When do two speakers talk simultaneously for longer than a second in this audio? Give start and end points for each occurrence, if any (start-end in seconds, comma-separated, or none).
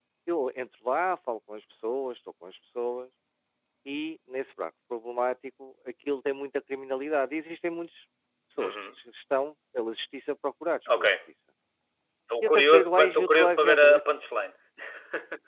12.4-13.9